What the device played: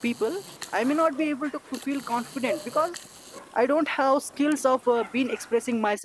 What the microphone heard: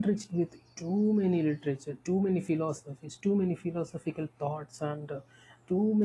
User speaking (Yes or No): Yes